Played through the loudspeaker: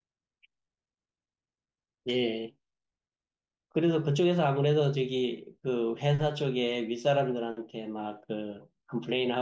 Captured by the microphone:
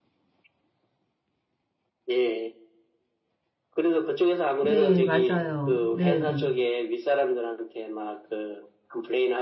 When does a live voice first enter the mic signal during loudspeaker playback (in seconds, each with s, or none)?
4.6 s